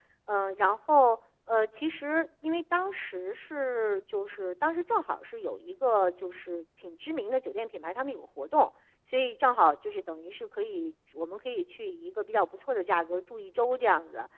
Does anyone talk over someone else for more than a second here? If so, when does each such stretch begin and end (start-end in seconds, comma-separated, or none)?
none